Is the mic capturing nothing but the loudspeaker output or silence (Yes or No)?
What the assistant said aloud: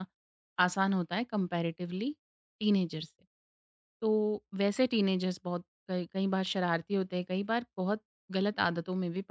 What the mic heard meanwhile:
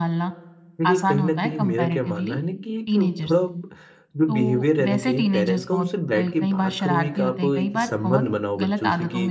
No